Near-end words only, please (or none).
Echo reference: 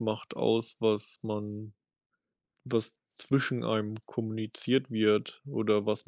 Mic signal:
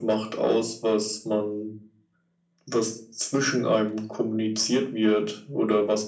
none